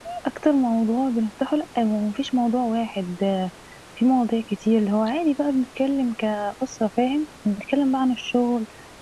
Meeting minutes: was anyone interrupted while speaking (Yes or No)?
No